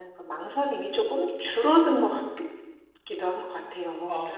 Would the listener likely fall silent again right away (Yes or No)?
No